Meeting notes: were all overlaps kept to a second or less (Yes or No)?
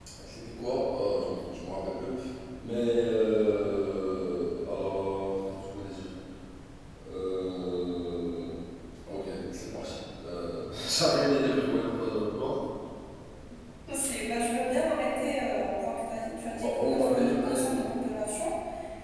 No